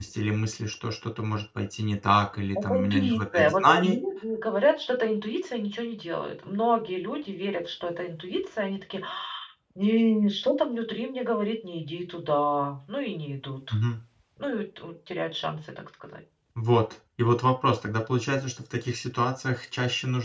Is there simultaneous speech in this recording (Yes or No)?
Yes